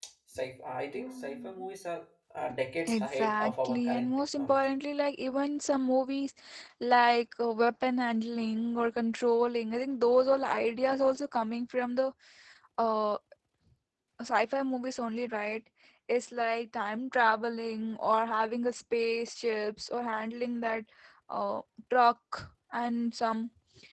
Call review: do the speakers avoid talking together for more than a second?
No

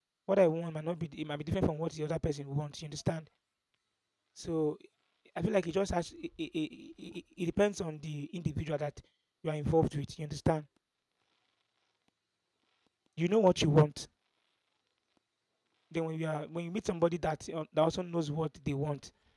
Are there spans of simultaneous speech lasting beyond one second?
No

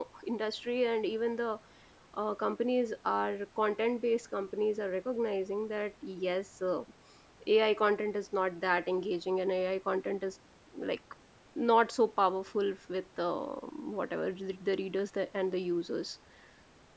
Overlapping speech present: No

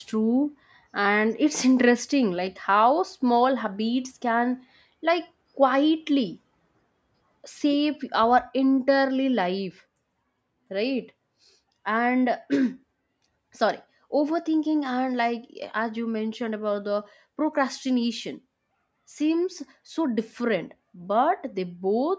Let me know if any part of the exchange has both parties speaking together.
No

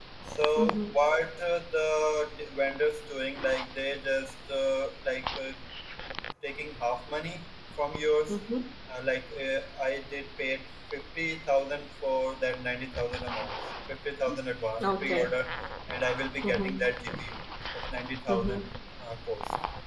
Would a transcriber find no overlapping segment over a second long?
Yes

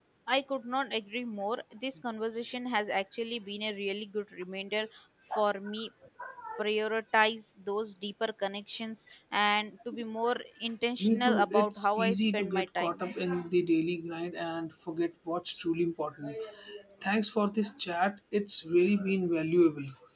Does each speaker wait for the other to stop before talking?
No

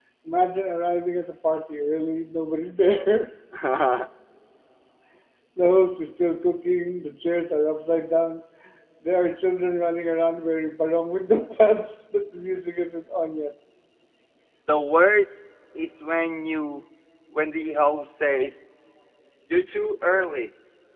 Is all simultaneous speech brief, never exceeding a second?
Yes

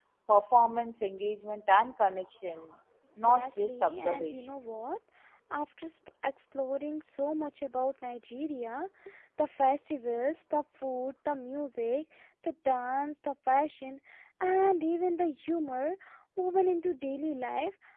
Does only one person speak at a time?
No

